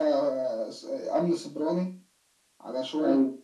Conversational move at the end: listening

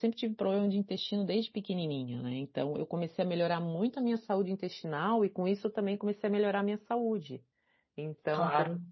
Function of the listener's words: taking over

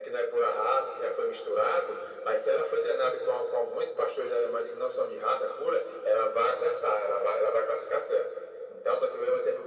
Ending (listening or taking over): listening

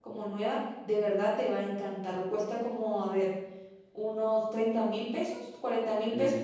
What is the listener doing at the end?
taking over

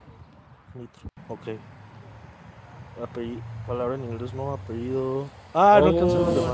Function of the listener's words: taking over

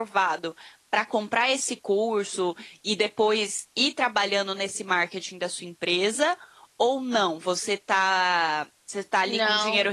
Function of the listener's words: listening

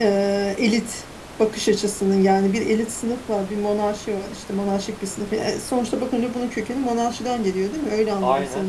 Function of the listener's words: listening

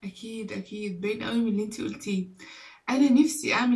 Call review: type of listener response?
listening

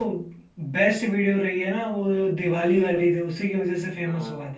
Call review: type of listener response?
taking over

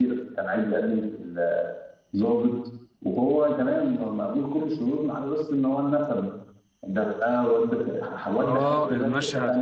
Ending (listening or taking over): taking over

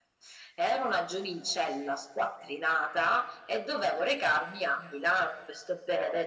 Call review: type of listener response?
listening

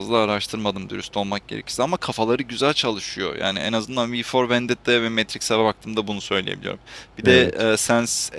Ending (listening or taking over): listening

